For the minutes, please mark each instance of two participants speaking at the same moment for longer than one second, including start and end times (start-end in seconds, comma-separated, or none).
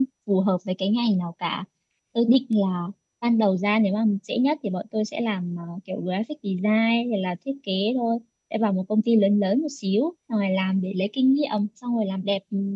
none